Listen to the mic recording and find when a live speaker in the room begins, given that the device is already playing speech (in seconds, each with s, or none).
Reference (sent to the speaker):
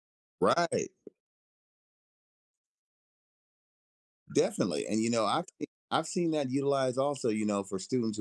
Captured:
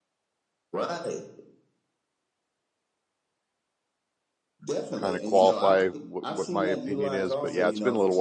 5.0 s